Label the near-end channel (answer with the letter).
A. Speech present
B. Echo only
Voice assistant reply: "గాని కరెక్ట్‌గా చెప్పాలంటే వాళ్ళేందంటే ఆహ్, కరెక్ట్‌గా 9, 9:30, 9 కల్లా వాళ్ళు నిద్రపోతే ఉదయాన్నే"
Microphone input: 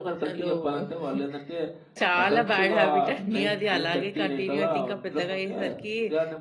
A